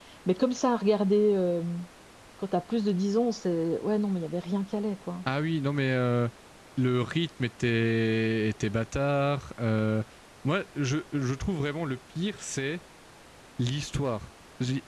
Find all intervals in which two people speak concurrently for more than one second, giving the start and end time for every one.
none

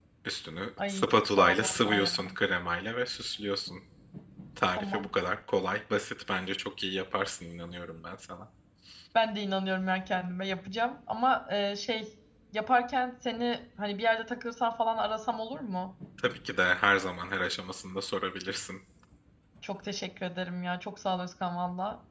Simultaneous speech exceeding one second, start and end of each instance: 0.8-2.1

